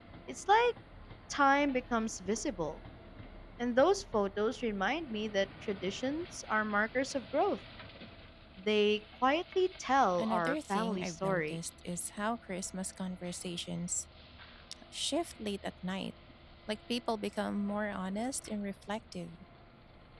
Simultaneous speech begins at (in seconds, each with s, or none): 10.2 s